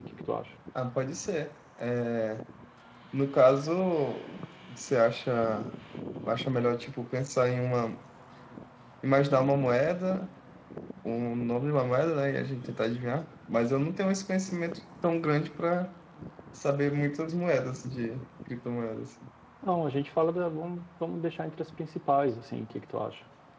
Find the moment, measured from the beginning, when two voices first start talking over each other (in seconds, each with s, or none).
none